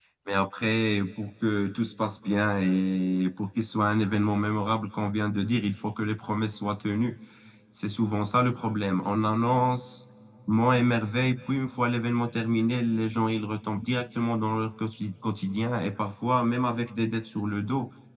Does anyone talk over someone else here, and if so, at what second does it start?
none

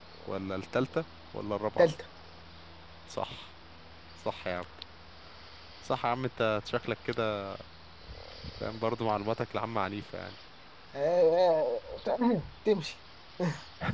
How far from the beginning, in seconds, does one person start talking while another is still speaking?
none

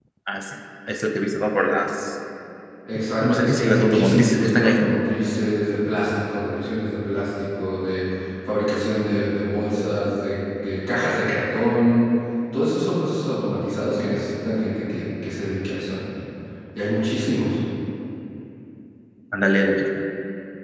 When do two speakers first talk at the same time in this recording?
3.2 s

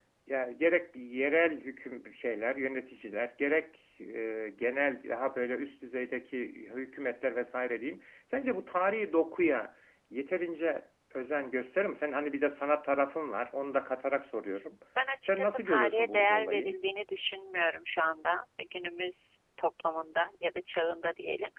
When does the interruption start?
15.2 s

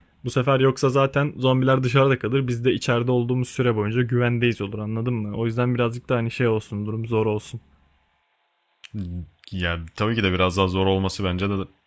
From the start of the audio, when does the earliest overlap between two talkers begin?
none

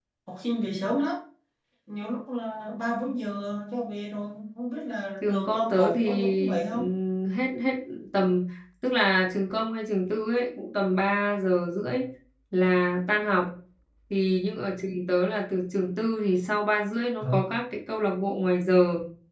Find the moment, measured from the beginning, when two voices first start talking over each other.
5.2 s

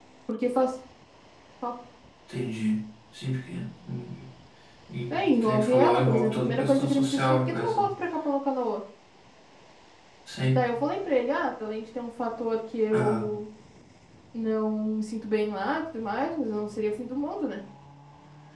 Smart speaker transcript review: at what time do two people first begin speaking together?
5.1 s

